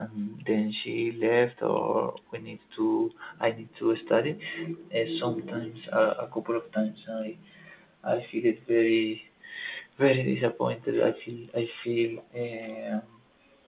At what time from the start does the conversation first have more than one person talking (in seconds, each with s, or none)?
none